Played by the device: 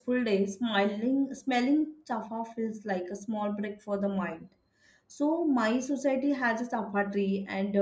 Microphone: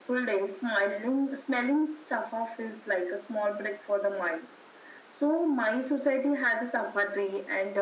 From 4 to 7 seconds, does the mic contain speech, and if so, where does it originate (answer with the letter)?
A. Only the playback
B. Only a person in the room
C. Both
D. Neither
A